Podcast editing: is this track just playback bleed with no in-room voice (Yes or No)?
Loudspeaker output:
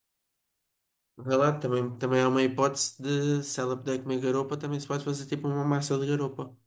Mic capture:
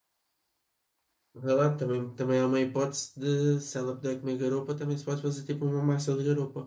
Yes